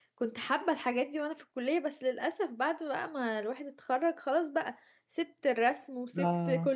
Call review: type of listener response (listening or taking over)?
listening